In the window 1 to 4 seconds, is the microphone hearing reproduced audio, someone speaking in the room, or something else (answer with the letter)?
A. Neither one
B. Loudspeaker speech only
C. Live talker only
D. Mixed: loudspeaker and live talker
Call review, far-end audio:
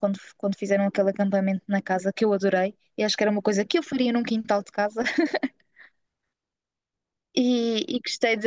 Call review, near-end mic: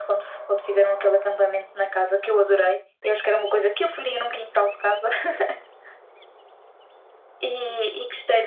B